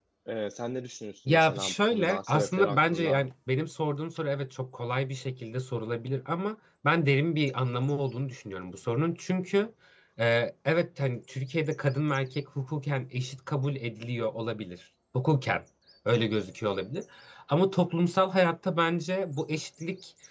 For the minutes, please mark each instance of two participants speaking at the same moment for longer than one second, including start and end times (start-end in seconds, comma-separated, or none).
1.3-3.2